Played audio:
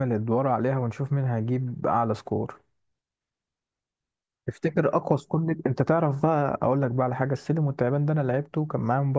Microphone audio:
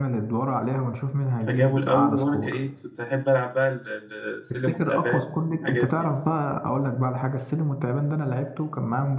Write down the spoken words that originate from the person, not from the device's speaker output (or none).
فجابوا الأول وأنا كإيه كنت أحب ألعب بقى ال- ال- السلم والتعبان الحاجات دي